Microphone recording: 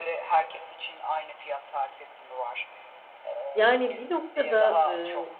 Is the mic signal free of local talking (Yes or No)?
No